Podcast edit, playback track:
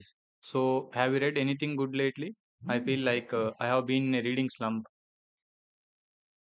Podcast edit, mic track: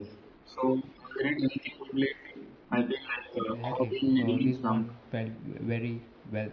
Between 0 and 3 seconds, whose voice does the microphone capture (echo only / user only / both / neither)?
echo only